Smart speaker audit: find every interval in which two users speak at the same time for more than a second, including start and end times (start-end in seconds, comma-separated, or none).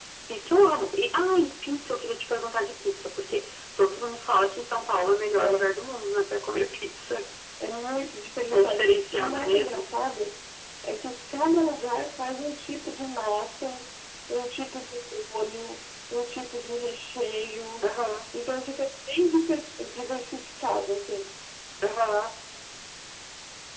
8.5-9.8